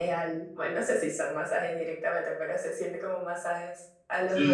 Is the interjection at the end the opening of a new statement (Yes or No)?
Yes